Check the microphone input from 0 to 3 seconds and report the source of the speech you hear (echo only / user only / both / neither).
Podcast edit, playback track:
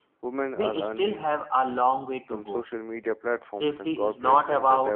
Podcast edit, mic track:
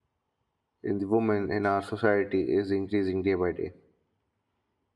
user only